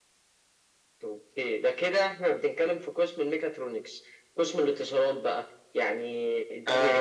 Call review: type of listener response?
taking over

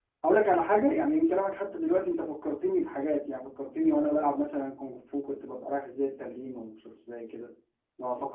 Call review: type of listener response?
listening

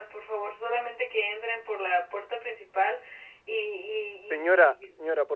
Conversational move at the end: taking over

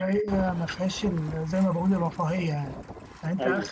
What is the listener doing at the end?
listening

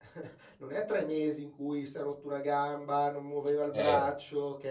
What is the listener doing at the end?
listening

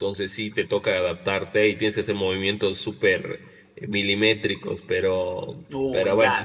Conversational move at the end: taking over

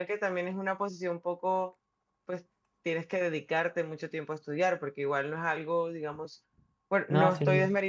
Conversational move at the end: listening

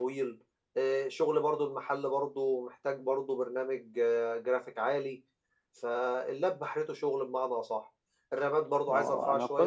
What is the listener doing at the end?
taking over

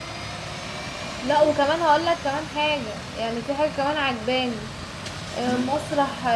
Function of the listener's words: listening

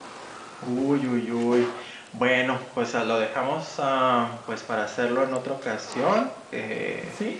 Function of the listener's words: taking over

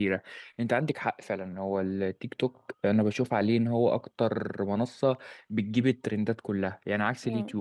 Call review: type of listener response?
listening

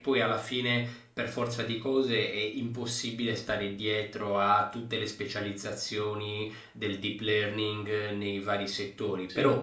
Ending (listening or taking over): listening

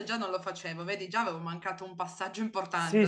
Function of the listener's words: taking over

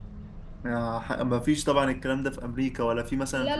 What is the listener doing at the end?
taking over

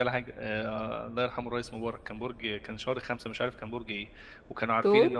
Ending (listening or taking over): listening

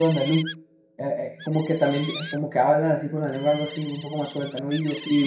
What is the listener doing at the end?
taking over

